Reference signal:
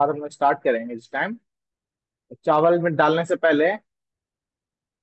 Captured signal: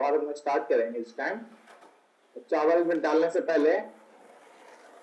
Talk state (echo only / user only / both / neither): echo only